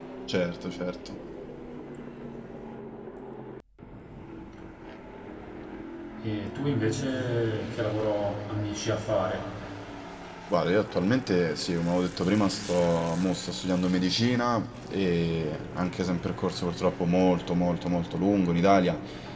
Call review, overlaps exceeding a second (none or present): none